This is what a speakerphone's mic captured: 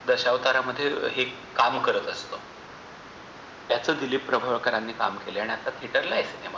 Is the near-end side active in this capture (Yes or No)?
No